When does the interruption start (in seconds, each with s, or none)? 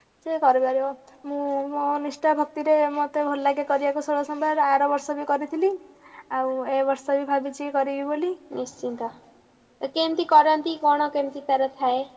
none